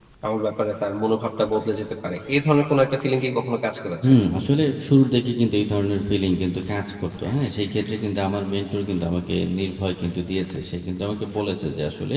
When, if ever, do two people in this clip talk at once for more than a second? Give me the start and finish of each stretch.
none

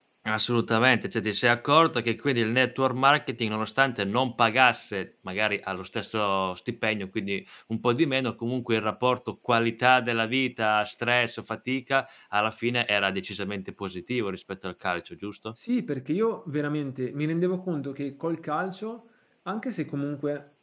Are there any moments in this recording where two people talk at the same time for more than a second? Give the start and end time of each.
none

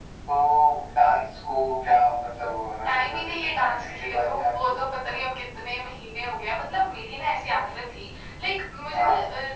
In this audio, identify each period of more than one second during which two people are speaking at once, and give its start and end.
2.9-4.8

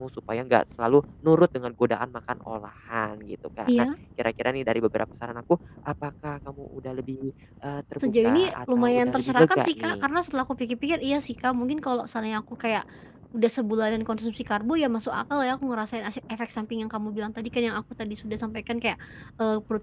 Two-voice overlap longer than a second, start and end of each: 8.0-10.1

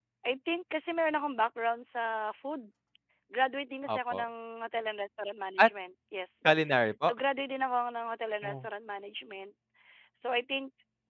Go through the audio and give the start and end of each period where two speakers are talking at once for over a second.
none

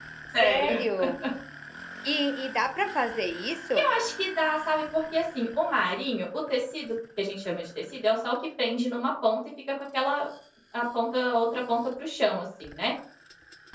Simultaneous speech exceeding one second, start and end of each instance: none

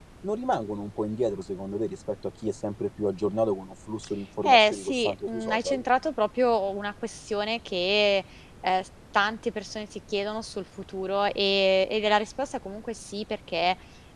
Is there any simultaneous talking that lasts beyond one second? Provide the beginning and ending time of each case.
4.4-5.8

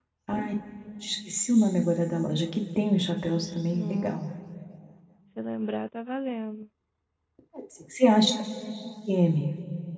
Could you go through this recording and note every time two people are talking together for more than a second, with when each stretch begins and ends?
none

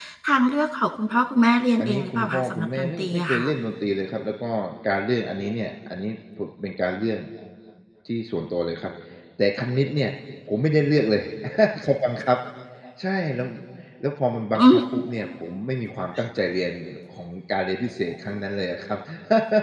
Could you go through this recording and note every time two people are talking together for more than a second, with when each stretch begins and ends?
1.8-3.5

